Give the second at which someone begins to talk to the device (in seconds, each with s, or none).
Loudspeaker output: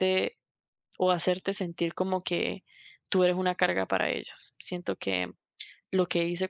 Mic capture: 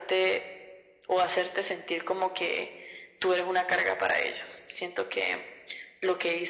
none